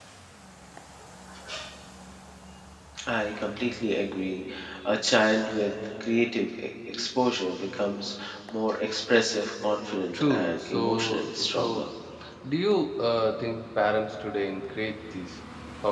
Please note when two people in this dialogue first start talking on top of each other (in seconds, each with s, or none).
10.1 s